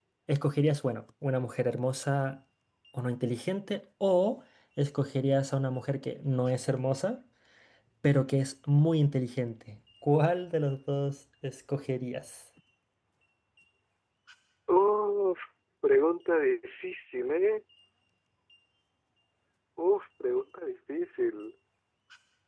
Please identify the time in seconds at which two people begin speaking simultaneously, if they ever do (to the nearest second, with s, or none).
none